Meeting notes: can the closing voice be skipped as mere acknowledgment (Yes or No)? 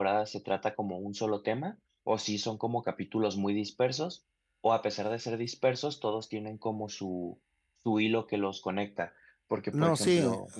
No